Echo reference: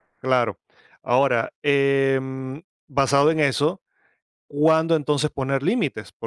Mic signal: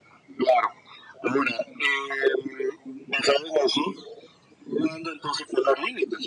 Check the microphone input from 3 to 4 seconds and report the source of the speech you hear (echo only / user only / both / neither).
echo only